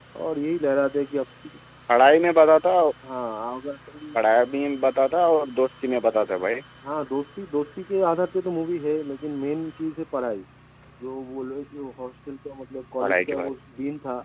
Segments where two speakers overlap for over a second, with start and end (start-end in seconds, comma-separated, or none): none